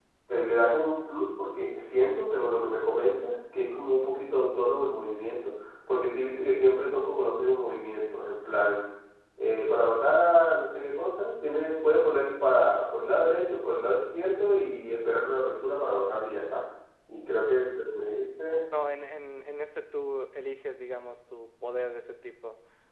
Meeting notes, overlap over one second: none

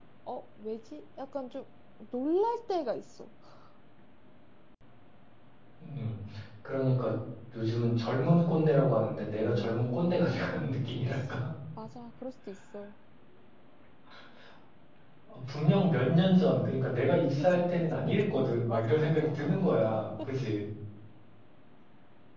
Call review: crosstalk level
present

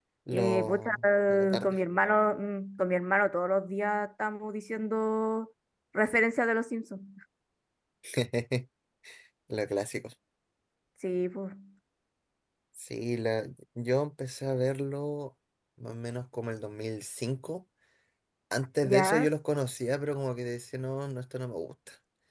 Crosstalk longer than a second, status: present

